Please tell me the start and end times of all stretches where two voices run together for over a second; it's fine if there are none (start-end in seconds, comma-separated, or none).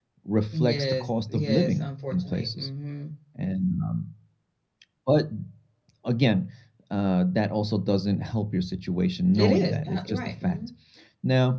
0.6-2.7, 9.4-10.6